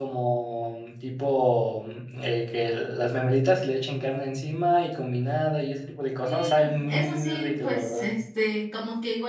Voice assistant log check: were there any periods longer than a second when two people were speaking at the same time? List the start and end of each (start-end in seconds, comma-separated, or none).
6.2-8.1